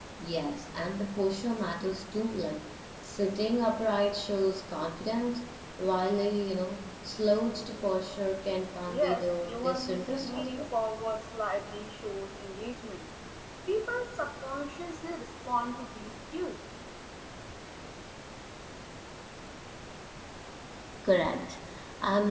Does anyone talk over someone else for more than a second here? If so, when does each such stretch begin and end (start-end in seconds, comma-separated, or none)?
8.9-10.7